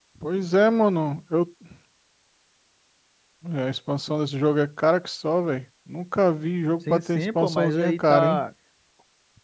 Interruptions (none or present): present